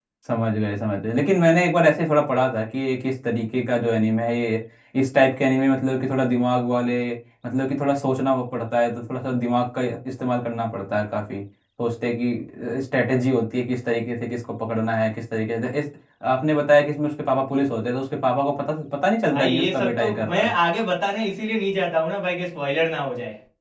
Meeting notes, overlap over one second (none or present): present